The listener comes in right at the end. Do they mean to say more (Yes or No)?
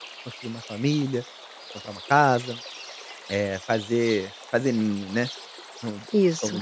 No